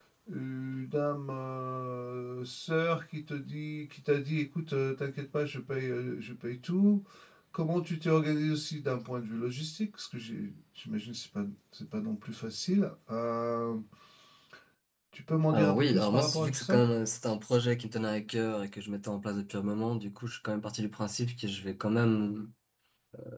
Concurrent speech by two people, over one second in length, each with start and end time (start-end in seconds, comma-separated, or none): 15.5-16.8